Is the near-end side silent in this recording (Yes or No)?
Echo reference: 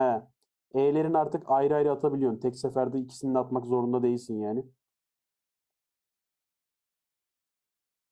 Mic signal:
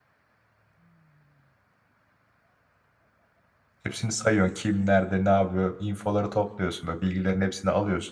No